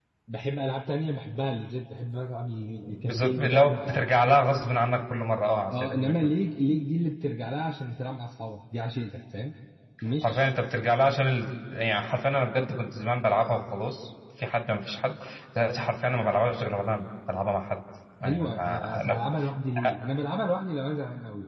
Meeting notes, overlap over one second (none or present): present